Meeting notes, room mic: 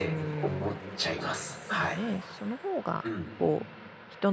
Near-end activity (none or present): present